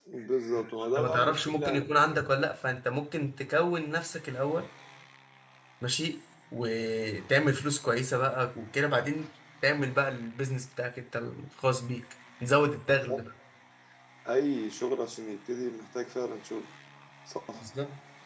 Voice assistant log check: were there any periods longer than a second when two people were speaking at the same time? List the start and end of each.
0.9-2.2

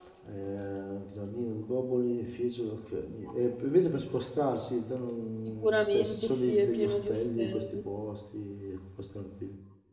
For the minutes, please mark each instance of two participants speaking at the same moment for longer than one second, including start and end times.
5.5-7.9

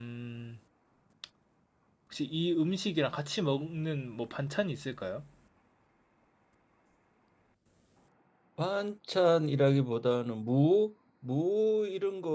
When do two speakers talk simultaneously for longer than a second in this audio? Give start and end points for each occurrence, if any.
none

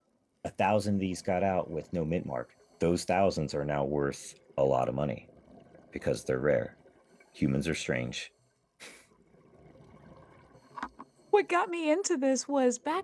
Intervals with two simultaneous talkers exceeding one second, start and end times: none

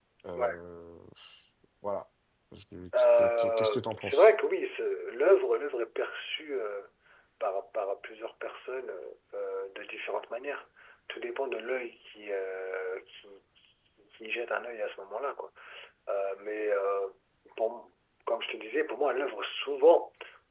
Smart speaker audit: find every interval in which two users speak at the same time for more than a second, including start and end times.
3.0-4.3

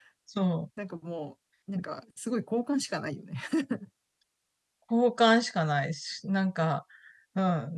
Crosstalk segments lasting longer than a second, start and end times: none

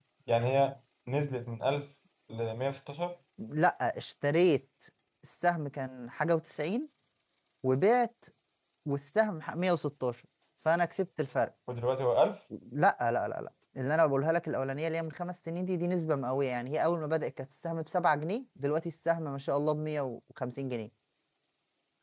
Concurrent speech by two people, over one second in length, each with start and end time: none

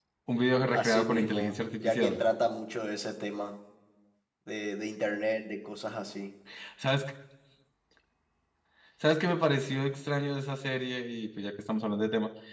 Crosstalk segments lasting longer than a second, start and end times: 0.7-2.1

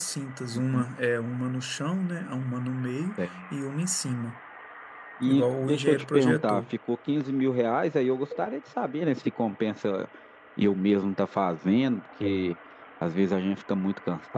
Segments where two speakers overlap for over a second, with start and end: 5.3-6.6

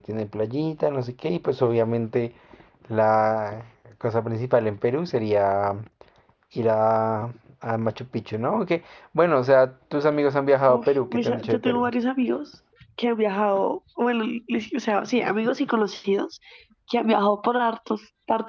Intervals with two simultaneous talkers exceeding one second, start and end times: 10.7-11.9

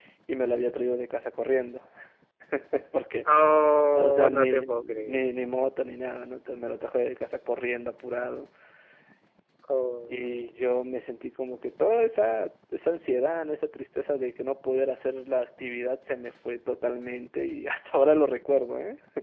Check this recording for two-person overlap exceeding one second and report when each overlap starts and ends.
3.9-5.2

